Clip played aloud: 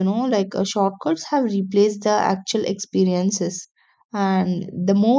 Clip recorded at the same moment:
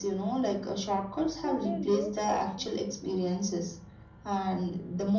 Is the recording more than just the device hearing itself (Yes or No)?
Yes